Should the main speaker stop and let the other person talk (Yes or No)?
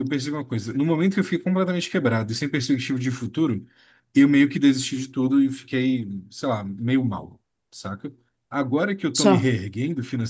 No